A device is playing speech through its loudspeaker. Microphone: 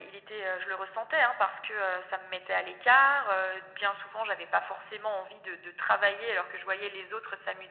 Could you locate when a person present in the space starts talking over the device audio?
none

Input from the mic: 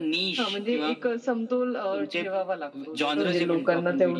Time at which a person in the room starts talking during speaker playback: 3.2 s

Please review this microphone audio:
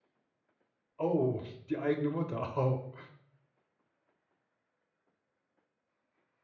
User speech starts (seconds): 1.0 s

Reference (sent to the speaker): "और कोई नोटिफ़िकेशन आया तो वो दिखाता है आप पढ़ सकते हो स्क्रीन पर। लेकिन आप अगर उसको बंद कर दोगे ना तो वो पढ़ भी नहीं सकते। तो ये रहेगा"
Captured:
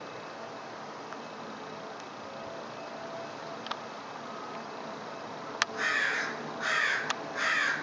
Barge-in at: none

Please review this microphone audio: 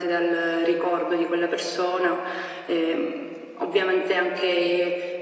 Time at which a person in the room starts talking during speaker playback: none

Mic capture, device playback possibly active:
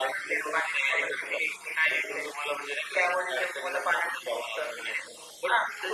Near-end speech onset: none

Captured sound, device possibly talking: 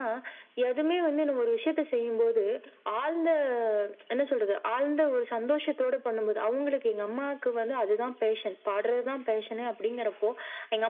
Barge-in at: none

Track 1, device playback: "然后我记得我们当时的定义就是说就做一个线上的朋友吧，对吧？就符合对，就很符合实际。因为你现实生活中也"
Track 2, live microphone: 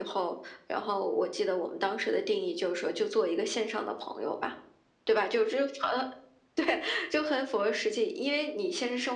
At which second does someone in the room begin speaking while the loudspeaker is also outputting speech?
none

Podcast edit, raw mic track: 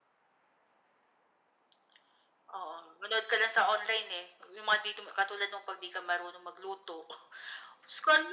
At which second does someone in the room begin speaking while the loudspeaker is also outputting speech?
none

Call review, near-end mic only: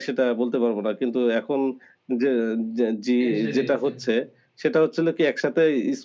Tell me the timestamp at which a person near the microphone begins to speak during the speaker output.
3.2 s

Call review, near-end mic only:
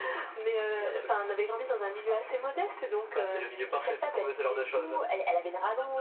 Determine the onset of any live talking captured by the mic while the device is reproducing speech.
none

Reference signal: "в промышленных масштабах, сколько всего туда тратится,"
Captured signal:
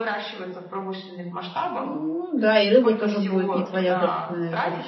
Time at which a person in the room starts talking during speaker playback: 1.8 s

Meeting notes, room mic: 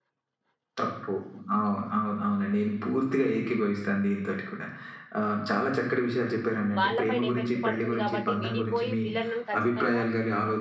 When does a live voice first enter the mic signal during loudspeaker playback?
6.8 s

